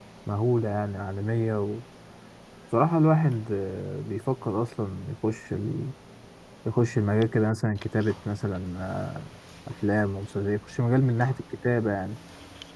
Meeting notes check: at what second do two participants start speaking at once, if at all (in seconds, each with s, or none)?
none